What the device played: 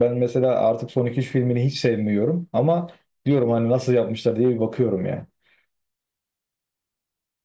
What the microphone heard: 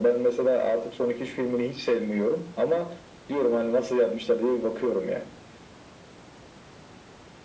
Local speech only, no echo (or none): none